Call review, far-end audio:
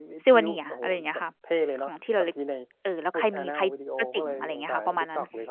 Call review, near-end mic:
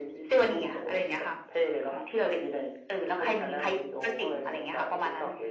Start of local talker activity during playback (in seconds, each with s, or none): none